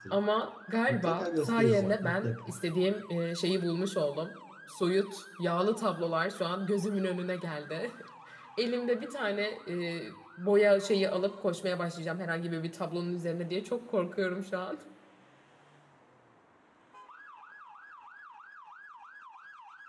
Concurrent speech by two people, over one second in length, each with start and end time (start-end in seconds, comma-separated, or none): 0.9-2.6